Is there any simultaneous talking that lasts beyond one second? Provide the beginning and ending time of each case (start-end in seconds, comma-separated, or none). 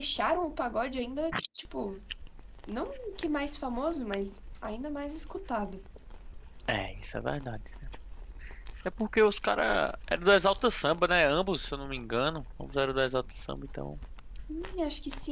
none